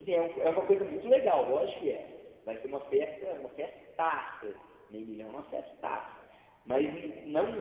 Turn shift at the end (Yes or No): No